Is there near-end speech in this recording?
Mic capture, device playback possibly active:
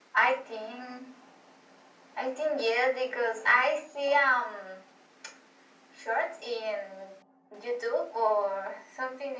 No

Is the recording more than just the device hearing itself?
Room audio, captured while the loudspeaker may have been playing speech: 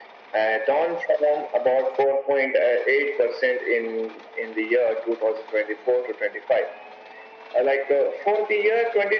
No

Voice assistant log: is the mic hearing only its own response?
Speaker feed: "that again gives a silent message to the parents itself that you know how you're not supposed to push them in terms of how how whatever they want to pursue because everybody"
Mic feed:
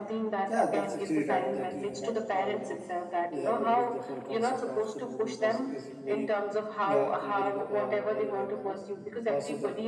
No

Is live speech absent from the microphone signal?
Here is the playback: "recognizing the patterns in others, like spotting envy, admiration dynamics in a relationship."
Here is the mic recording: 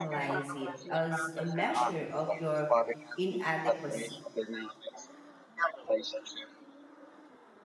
No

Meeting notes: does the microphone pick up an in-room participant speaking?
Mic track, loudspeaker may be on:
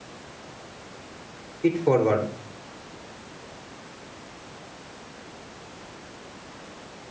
Yes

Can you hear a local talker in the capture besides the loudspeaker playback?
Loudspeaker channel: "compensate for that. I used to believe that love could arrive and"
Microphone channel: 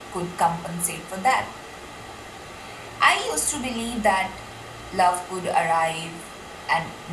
No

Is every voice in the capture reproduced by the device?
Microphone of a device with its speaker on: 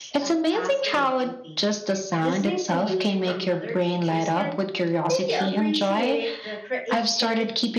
No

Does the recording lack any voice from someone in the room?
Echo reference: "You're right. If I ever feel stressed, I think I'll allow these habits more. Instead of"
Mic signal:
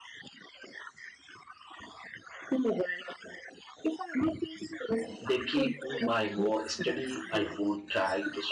No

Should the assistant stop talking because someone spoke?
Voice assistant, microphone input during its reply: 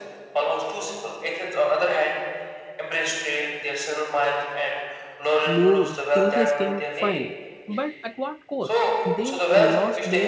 Yes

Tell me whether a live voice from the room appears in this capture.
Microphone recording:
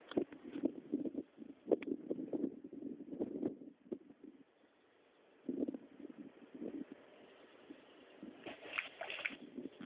No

